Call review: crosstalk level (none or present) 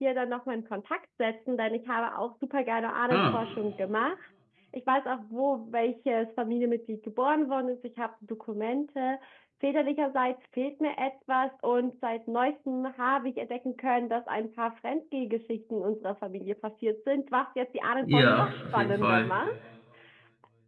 present